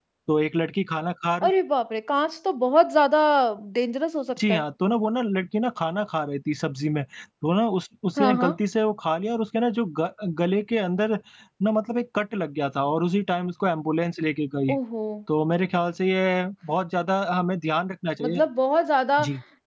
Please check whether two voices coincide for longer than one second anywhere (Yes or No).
No